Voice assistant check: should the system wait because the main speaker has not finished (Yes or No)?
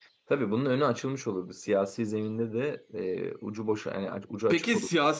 No